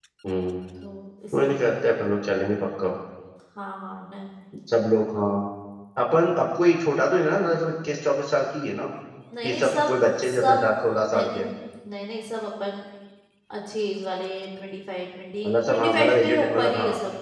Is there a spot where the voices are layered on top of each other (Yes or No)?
Yes